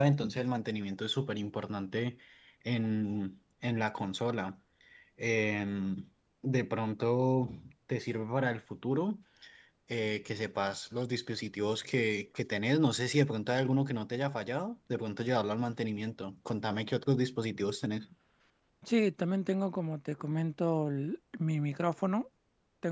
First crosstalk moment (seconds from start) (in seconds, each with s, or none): none